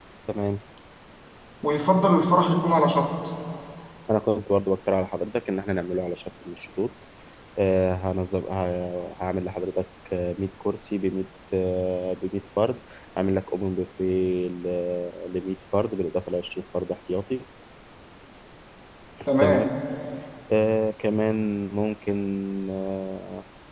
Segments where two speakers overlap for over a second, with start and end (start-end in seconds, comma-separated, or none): none